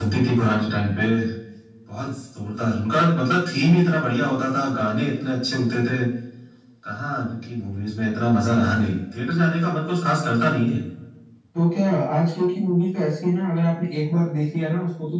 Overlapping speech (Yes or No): No